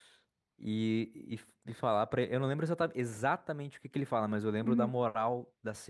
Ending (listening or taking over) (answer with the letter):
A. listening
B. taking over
A